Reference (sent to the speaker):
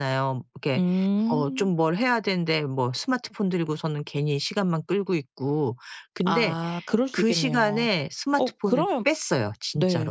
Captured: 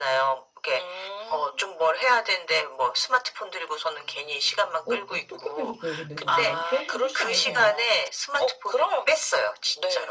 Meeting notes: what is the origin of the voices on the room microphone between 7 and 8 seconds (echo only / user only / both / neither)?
both